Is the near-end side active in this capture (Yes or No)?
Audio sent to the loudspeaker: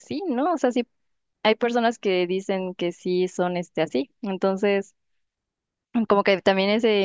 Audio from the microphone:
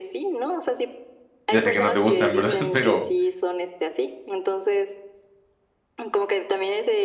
Yes